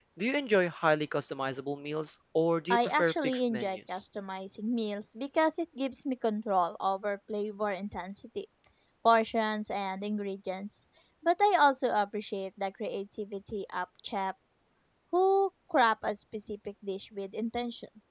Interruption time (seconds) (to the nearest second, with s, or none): 3 s